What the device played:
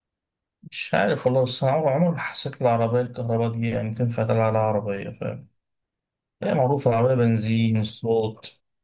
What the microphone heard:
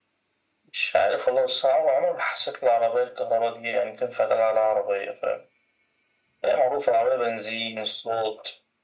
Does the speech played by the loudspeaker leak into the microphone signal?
Yes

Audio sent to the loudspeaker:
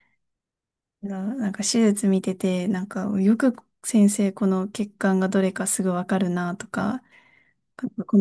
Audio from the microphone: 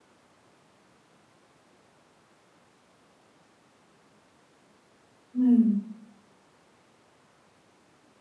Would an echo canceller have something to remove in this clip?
No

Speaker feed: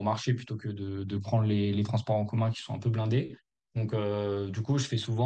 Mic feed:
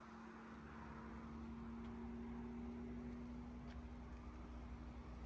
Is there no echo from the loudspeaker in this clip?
Yes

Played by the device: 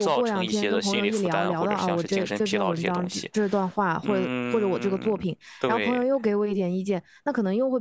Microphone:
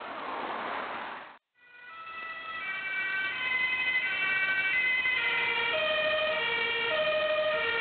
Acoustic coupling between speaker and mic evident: No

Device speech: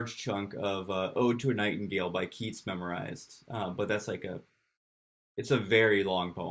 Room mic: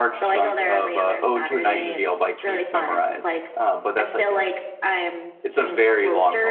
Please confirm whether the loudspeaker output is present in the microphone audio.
Yes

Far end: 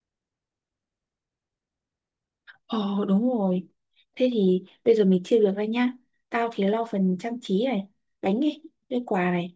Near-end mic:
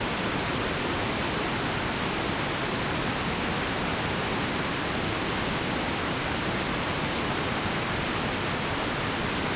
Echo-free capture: Yes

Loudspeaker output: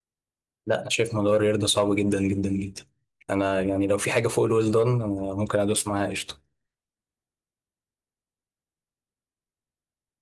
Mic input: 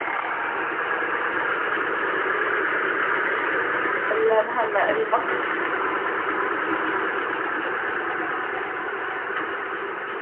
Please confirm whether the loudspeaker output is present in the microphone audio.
No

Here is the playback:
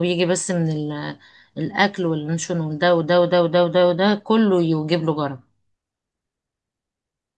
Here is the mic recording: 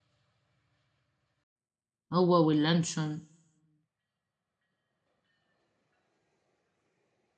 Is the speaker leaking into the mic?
No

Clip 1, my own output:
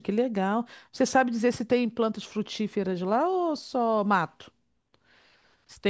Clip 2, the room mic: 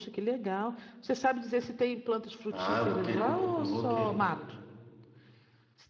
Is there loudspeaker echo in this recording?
Yes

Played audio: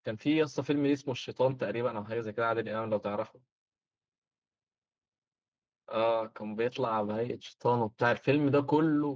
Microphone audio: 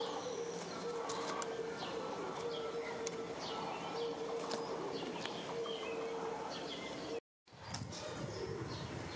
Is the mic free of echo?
Yes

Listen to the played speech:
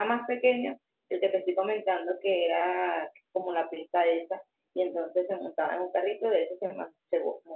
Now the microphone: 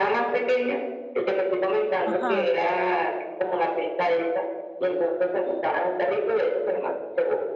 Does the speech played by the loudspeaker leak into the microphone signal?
Yes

